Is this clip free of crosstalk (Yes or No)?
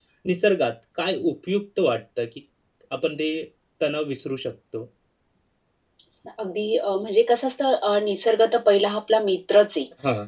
Yes